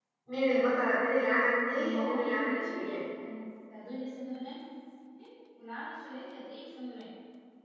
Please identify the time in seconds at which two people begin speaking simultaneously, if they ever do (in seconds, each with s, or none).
1.7 s